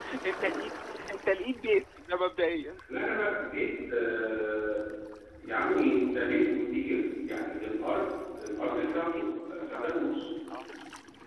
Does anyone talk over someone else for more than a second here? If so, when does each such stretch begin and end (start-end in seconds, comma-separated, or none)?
8.7-10.1